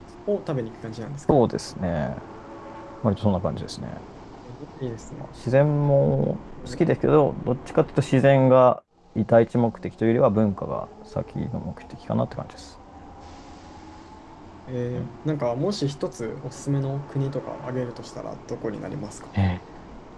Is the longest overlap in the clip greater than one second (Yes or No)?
No